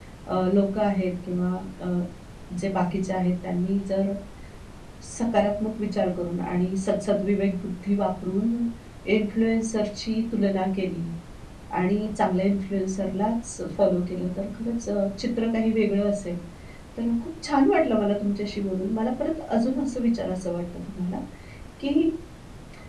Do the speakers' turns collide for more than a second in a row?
No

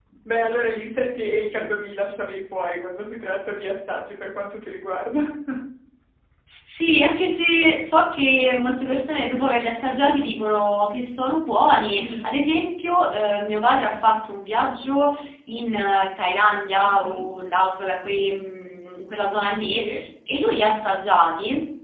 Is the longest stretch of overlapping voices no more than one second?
Yes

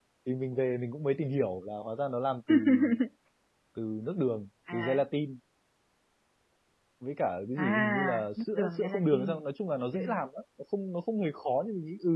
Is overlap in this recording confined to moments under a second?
No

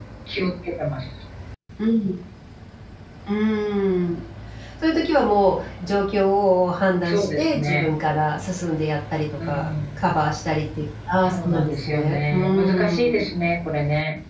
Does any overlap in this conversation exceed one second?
Yes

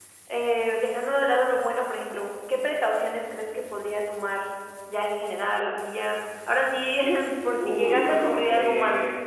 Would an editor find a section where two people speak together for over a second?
Yes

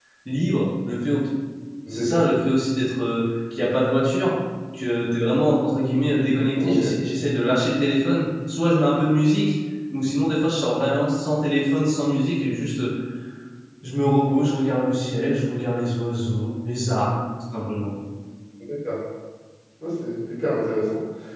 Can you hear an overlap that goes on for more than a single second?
No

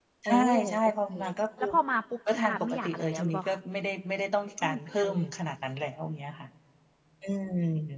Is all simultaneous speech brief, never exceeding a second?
No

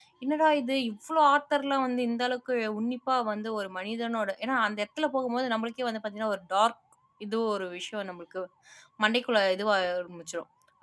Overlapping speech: No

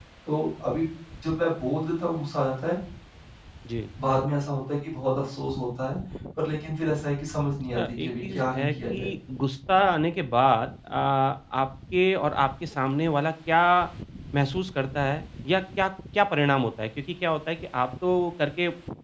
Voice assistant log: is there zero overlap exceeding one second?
No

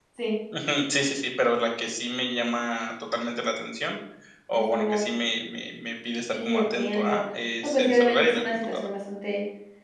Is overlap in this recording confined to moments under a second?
No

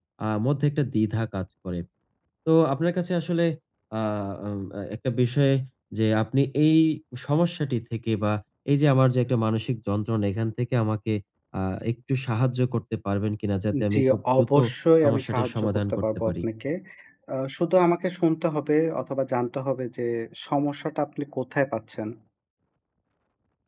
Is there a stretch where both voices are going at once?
Yes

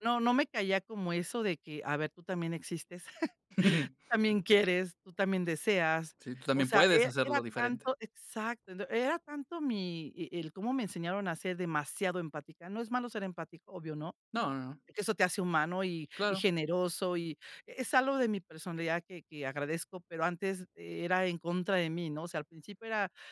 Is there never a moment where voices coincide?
No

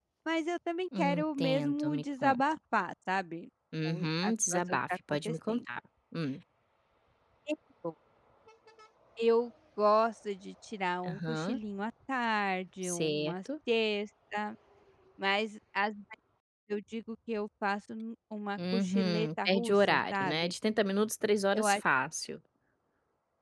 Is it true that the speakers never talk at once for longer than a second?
No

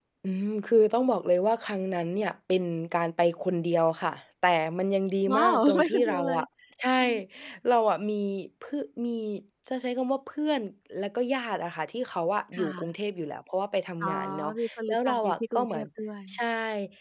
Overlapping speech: Yes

